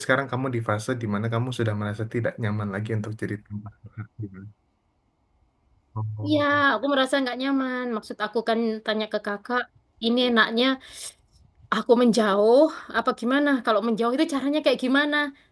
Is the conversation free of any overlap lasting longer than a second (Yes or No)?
Yes